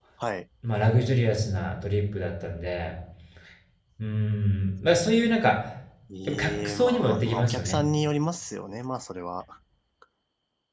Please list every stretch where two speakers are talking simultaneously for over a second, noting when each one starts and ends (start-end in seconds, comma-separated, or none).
6.2-7.8